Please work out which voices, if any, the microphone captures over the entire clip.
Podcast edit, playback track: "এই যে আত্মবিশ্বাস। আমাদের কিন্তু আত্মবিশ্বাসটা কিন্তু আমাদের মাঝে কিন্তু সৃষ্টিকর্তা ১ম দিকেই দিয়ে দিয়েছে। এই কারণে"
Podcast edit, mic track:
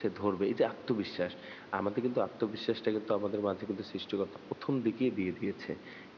echo only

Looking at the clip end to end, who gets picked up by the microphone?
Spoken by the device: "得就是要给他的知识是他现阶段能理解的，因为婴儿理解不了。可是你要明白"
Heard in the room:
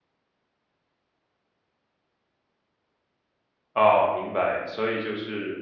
user only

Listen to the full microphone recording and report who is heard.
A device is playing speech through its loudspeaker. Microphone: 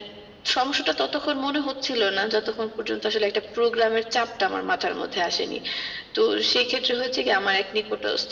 echo only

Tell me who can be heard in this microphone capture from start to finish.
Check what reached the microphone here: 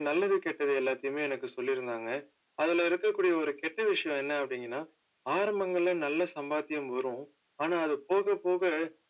echo only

